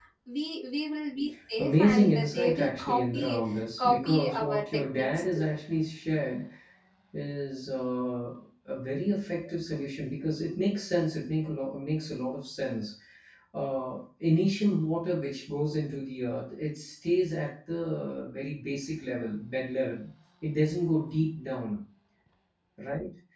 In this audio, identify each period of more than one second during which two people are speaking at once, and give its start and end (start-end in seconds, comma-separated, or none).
1.6-5.5